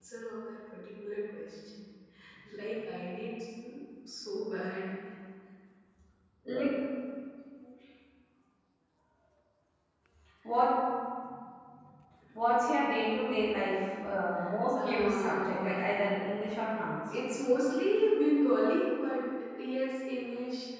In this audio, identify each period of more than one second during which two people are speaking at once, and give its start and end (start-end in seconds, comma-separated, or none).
14.8-16.1